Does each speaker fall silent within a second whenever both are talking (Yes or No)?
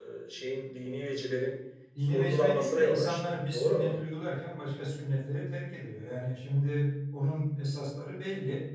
No